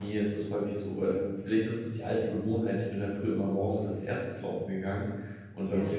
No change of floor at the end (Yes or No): Yes